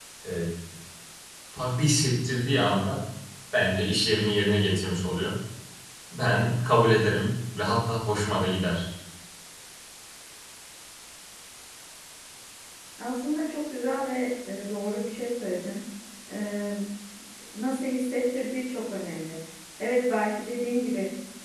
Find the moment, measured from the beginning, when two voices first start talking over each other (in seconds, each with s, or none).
none